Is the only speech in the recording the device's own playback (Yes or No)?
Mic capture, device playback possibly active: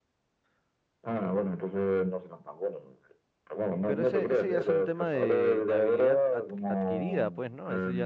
No